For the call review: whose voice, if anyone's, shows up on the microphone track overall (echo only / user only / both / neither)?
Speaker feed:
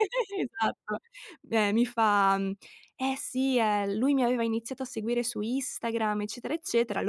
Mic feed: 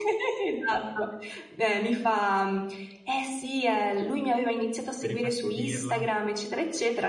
both